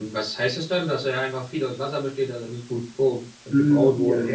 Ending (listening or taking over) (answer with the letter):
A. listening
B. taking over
B